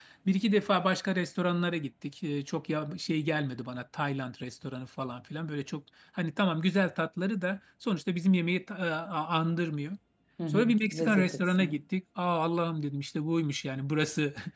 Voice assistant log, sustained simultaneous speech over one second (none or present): present